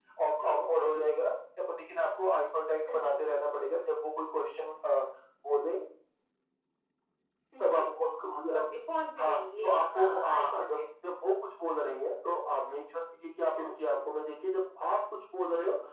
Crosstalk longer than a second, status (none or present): present